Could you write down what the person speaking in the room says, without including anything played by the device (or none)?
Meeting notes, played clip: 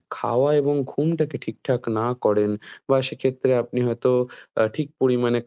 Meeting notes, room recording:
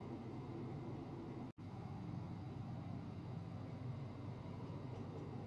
none